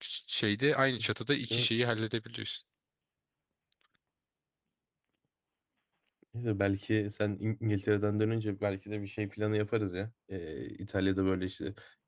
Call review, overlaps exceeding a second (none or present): none